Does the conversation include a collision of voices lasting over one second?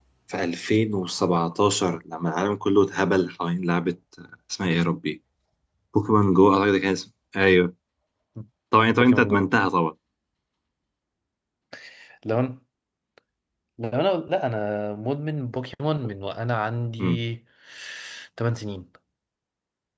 No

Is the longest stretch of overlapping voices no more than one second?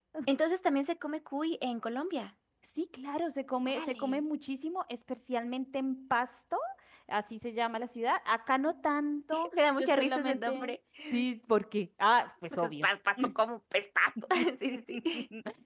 No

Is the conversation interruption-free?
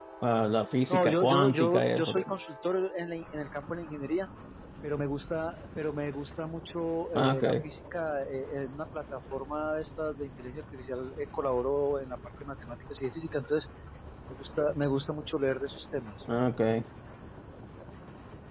No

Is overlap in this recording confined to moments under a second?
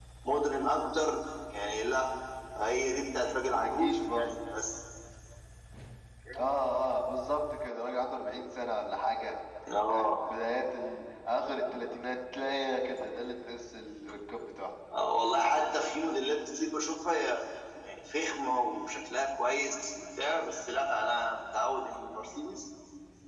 No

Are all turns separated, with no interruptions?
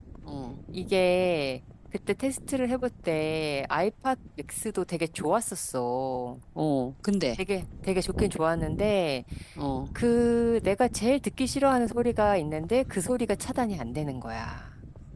Yes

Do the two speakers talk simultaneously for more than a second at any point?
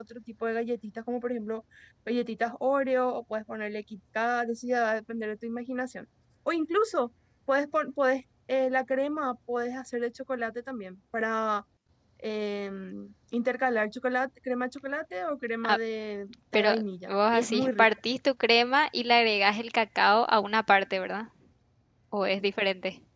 Yes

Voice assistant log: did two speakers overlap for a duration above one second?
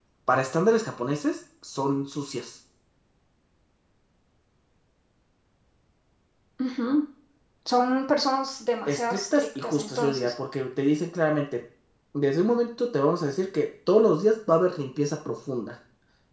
Yes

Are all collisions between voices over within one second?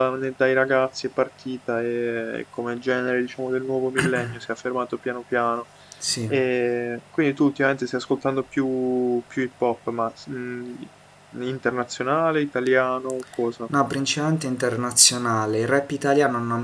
Yes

